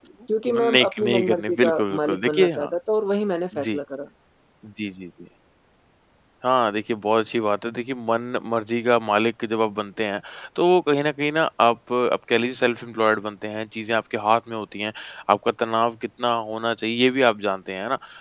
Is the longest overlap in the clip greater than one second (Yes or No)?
Yes